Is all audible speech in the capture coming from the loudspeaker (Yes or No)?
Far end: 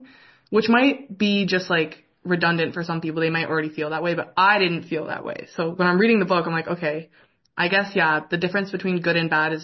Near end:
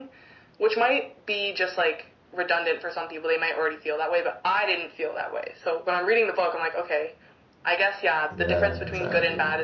No